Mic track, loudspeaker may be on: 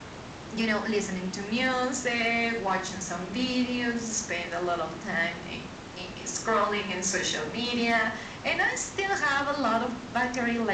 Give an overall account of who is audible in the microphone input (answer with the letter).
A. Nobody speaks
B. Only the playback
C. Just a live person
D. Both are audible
B